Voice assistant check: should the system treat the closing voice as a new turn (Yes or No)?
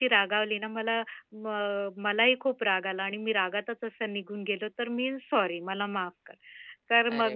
No